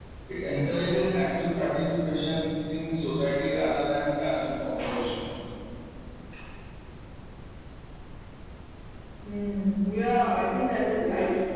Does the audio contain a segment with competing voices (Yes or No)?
No